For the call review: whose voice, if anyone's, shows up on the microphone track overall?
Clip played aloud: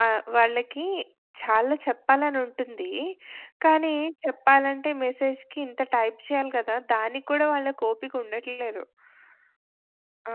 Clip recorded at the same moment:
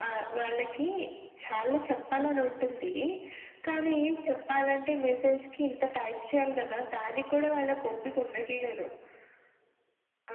echo only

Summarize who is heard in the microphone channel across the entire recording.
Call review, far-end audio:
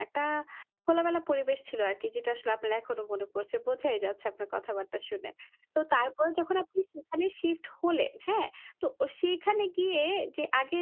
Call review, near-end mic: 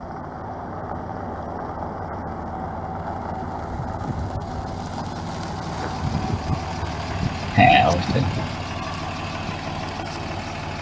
user only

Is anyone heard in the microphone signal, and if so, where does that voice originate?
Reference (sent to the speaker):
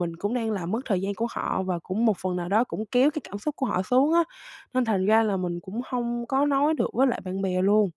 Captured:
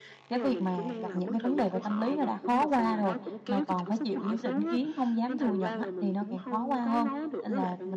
both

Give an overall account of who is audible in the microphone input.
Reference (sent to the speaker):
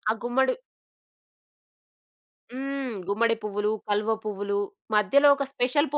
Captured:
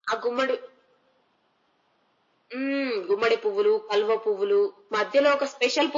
echo only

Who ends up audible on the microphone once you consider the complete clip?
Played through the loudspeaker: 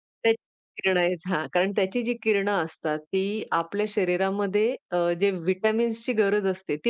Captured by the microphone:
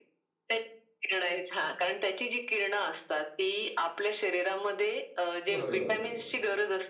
both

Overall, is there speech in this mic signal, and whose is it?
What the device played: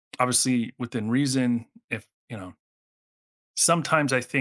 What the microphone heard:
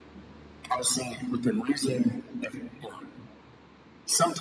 echo only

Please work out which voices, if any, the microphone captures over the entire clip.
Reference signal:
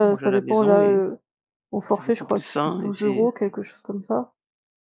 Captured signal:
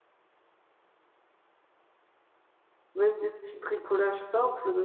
user only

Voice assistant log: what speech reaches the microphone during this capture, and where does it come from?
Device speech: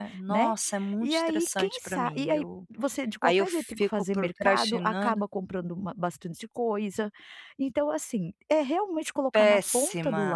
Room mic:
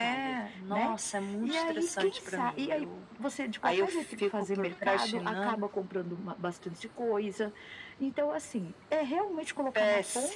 echo only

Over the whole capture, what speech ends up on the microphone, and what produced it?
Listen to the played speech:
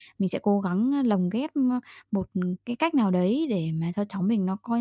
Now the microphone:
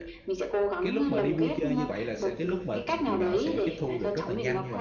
both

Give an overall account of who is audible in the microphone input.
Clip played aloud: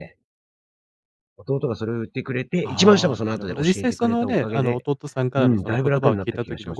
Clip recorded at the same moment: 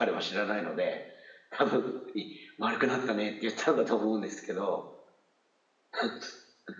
user only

